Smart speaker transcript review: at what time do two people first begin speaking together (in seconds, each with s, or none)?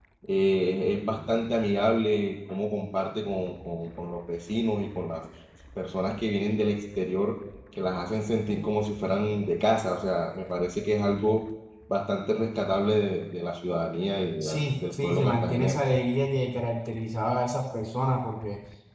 14.4 s